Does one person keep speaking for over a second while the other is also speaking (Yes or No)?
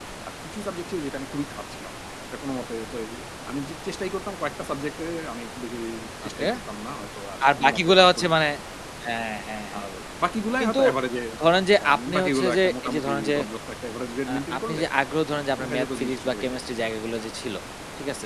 Yes